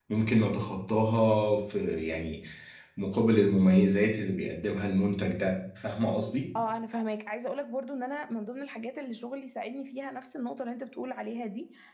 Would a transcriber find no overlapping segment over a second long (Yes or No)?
Yes